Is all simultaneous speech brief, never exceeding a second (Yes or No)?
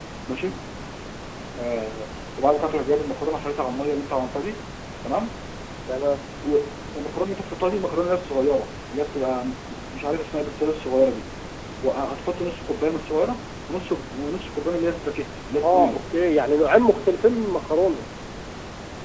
Yes